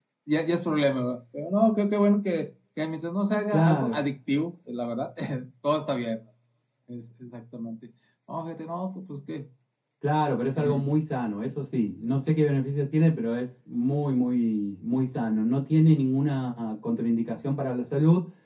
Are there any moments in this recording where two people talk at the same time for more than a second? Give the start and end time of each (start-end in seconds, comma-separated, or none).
none